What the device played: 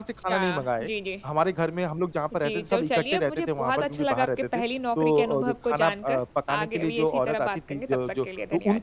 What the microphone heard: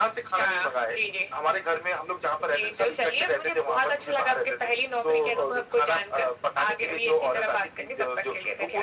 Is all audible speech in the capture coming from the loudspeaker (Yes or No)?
Yes